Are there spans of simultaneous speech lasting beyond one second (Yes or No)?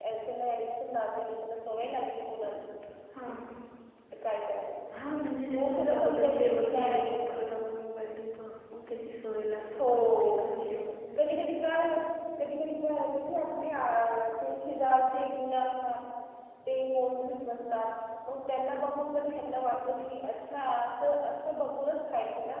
Yes